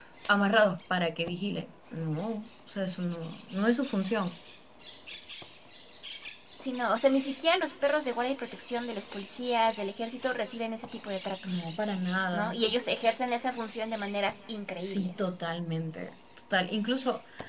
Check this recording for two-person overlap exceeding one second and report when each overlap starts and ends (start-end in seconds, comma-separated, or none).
none